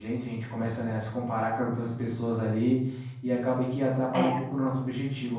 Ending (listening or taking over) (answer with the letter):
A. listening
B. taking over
A